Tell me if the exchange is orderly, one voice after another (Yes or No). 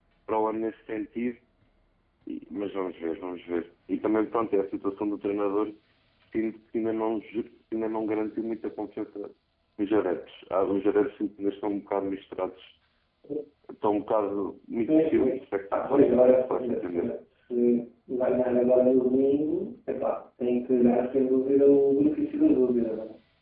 No